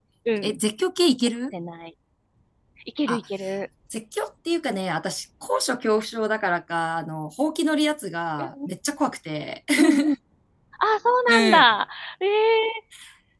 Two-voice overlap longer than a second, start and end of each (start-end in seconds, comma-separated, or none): none